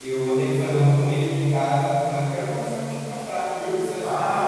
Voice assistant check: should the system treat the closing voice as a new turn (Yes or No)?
Yes